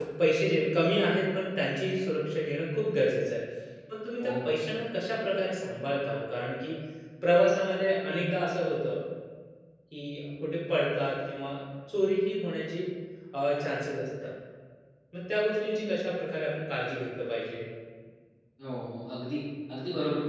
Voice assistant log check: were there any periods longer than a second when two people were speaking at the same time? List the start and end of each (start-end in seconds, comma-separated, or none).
none